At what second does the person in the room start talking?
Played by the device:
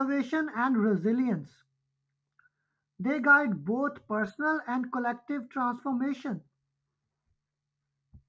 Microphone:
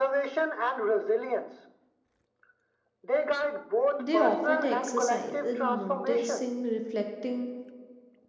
4 s

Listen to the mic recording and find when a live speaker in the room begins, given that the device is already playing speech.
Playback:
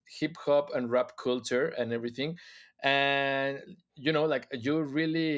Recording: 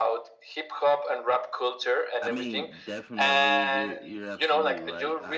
2 s

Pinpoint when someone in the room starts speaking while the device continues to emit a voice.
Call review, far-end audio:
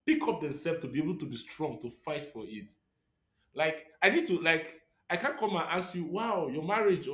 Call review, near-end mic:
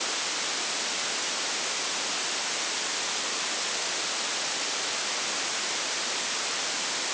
none

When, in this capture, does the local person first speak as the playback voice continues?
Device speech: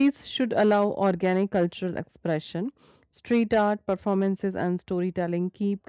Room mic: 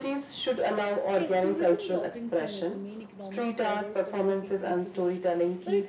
1 s

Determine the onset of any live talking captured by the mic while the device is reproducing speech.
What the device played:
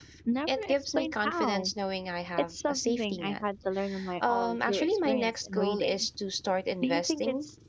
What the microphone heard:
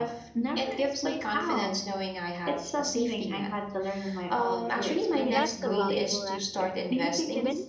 5 s

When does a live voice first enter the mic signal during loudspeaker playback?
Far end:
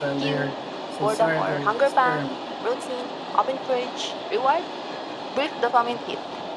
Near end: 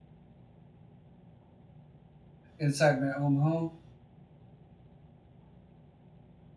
3 s

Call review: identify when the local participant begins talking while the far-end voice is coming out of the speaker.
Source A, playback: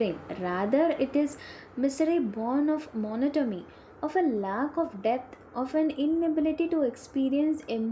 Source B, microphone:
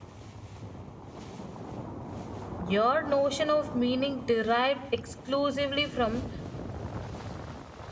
3 s

